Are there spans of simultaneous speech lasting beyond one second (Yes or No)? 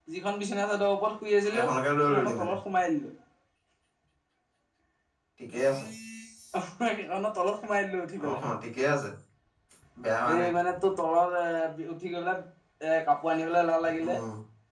No